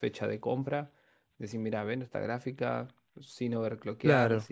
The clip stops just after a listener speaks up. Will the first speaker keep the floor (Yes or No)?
Yes